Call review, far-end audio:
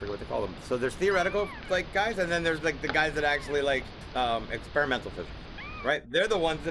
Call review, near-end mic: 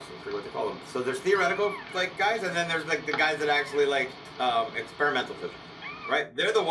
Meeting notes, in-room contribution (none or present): none